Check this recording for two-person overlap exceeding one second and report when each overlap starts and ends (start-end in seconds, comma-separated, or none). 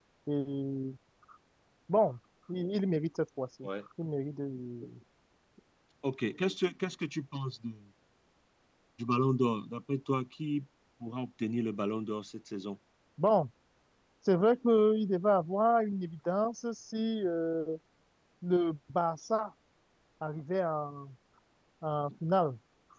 none